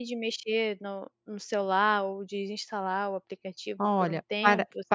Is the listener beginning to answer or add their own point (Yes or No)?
Yes